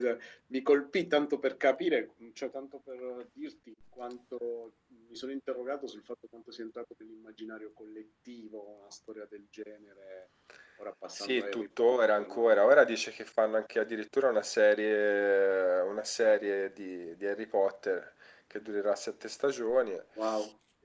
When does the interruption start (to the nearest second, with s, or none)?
11 s